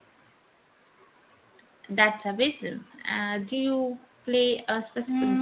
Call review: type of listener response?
taking over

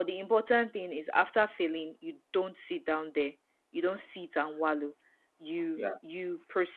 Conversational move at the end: listening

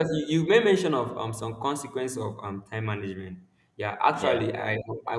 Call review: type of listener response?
listening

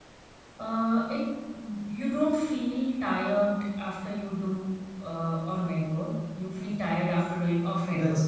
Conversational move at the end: taking over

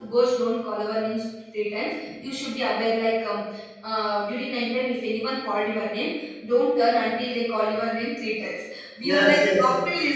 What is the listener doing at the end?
listening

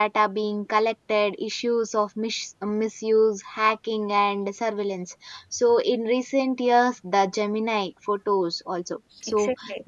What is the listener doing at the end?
taking over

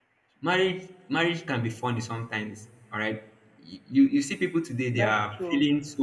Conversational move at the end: listening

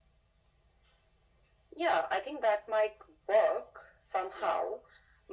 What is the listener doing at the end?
listening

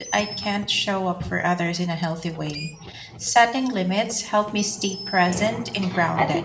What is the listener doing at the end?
taking over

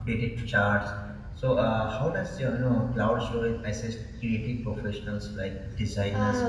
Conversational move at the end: taking over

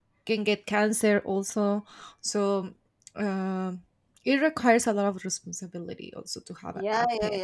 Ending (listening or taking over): taking over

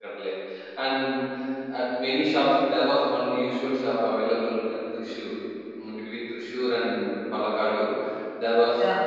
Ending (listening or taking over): listening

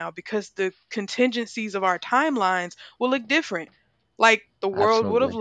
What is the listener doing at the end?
listening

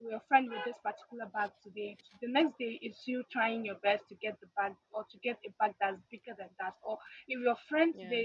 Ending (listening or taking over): listening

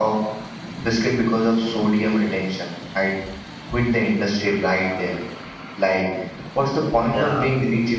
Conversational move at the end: listening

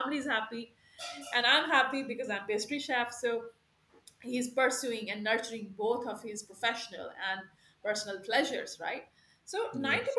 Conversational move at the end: listening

